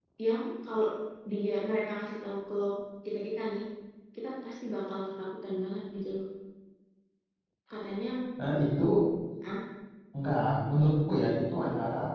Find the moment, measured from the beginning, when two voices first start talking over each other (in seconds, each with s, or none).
none